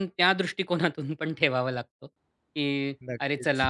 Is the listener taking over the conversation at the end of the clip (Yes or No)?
No